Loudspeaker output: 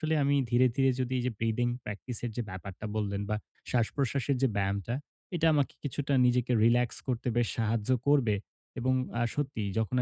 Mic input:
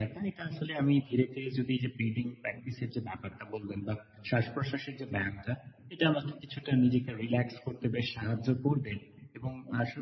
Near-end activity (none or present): none